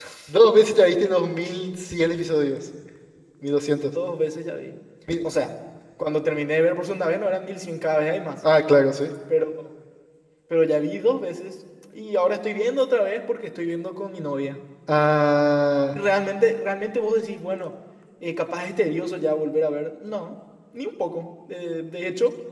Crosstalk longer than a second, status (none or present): none